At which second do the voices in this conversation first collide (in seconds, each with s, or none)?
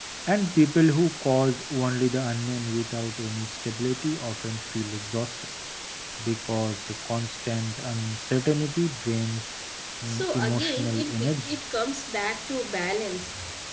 10.1 s